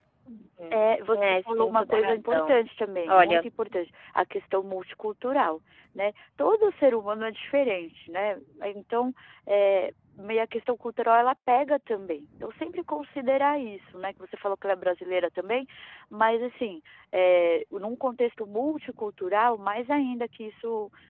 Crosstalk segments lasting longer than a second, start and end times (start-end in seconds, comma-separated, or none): 0.7-2.6